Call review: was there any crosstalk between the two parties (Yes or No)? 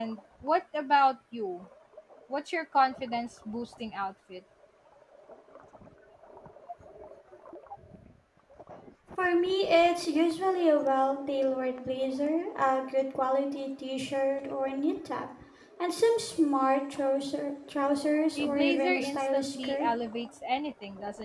Yes